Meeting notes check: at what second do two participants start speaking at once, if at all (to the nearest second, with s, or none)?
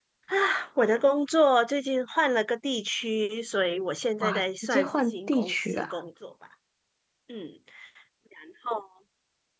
4 s